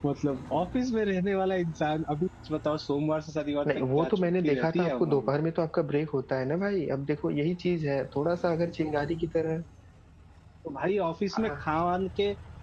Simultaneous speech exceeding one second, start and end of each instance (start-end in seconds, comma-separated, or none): 3.7-5.3